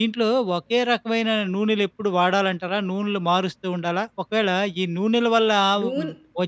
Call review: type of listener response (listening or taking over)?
listening